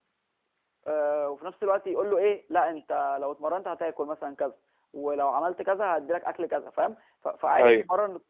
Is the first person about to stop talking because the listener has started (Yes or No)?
No